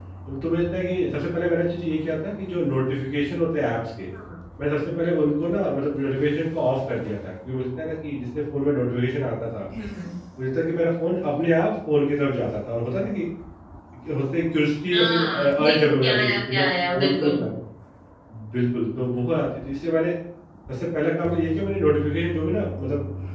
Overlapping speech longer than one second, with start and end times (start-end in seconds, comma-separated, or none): 14.9-17.4